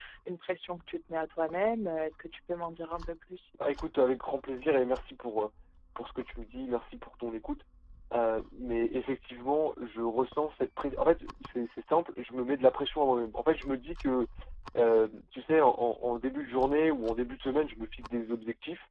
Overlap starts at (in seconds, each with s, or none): none